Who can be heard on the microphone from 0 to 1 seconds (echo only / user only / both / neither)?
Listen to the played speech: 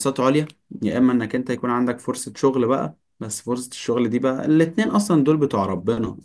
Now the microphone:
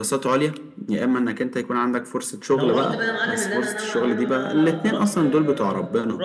echo only